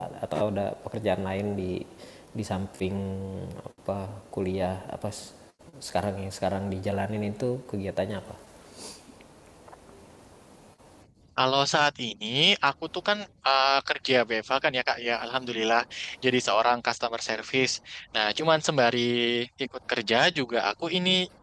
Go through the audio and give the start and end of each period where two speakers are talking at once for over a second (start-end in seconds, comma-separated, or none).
none